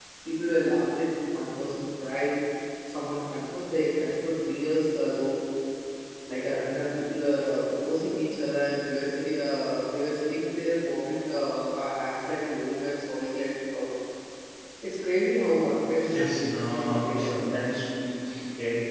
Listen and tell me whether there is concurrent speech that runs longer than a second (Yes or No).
Yes